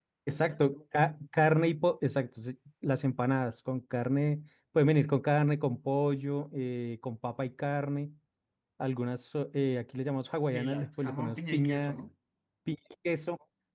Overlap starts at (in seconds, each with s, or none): 10.5 s